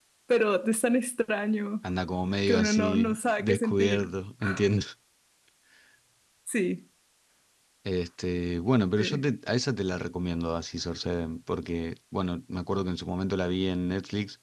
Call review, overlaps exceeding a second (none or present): present